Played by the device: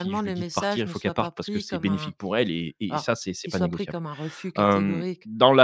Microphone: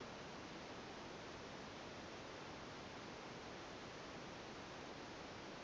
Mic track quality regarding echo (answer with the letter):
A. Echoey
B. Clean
B